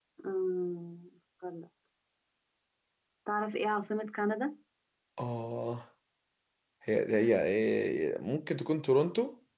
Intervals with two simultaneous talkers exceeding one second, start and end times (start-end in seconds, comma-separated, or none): none